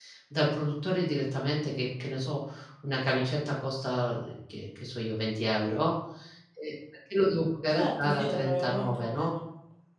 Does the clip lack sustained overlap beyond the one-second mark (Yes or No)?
No